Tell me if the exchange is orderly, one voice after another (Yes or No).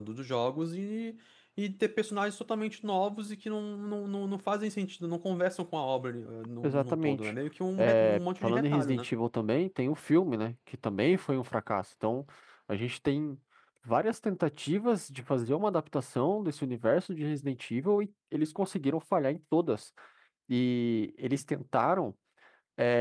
No